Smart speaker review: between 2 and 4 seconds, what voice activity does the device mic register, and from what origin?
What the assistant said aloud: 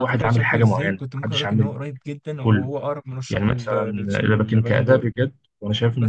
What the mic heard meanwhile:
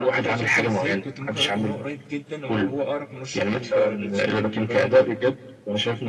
echo only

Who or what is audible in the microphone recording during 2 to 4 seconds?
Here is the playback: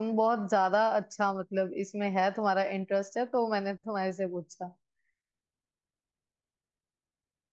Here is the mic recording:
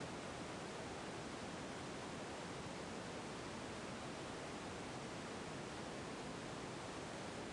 neither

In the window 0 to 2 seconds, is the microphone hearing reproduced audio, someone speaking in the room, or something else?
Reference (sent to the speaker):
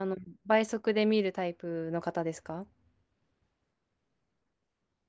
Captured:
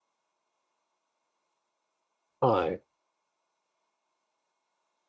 neither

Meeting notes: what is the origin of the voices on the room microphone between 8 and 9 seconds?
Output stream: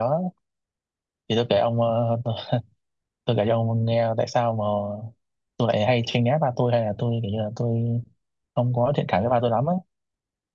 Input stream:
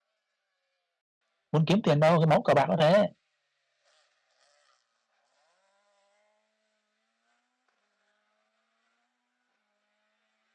neither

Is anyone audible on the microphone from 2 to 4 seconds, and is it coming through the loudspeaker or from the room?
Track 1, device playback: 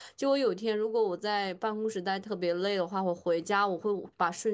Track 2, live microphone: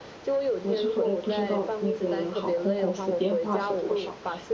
both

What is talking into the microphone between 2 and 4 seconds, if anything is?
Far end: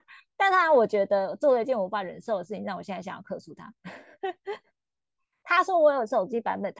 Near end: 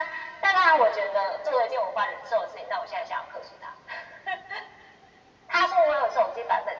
echo only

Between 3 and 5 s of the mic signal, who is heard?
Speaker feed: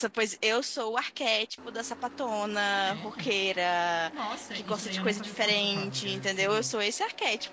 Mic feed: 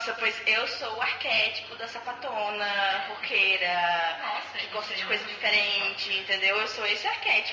echo only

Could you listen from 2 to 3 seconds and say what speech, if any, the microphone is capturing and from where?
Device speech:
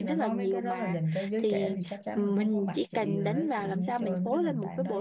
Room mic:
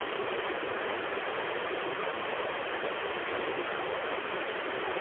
neither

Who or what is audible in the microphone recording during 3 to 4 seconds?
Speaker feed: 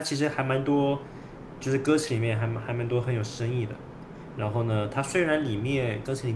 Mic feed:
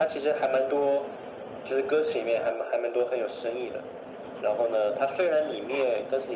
echo only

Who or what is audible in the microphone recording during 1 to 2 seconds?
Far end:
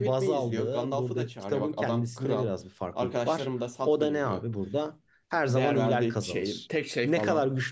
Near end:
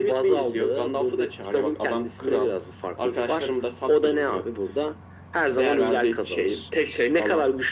echo only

